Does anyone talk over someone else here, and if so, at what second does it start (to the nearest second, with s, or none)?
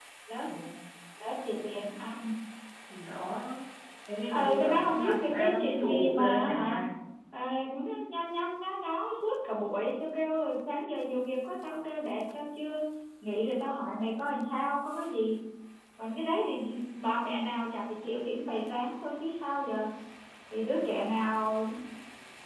4 s